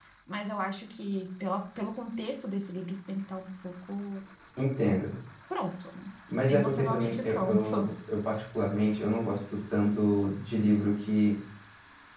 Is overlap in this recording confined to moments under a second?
No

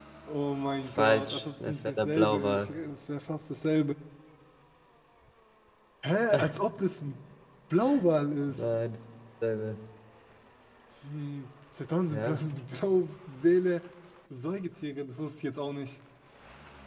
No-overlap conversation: No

